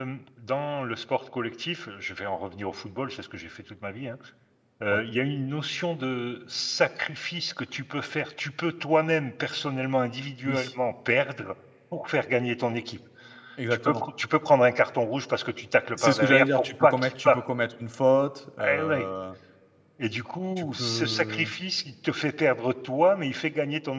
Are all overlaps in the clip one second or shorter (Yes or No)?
No